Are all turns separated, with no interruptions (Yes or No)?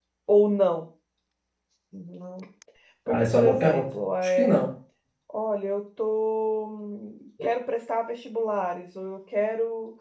No